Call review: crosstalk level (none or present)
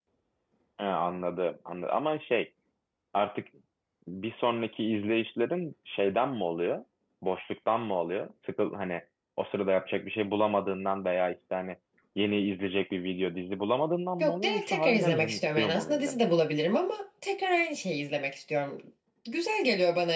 present